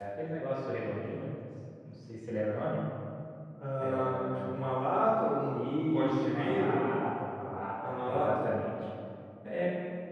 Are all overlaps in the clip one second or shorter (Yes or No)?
No